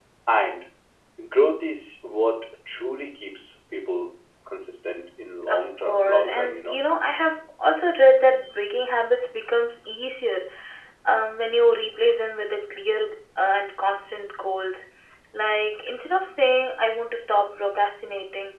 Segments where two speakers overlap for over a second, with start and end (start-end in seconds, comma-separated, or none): 5.5-6.8